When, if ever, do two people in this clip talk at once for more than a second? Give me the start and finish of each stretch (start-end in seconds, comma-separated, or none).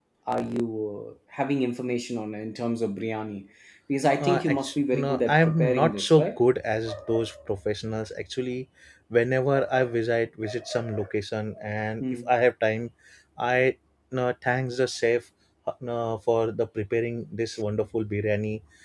4.2-6.2